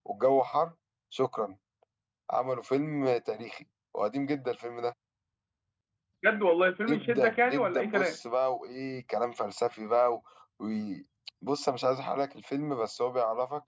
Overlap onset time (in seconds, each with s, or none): 6.9 s